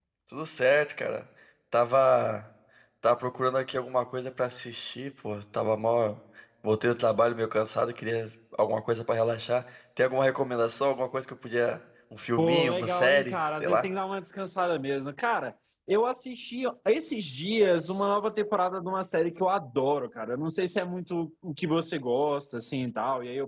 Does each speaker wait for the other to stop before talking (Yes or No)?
No